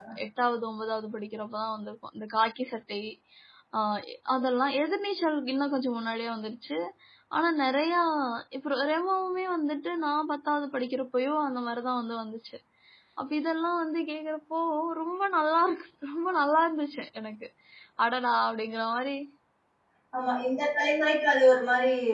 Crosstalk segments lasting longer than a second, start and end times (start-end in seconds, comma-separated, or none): none